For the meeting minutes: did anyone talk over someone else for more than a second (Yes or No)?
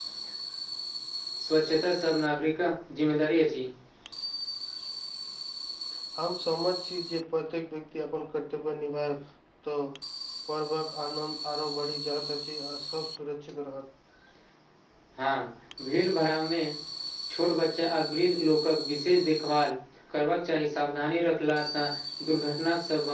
No